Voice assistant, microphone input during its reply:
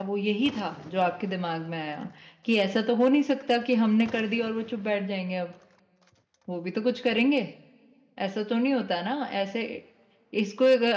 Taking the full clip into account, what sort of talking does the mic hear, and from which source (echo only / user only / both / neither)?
user only